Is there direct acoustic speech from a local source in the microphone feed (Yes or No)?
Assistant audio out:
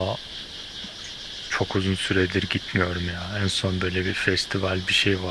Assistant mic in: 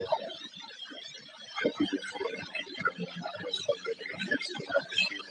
No